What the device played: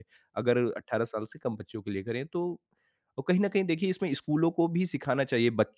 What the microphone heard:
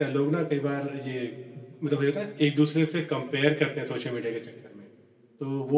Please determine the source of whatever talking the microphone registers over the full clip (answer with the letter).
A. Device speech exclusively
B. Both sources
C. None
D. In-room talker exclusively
D